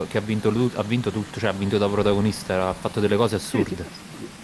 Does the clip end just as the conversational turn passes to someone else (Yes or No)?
Yes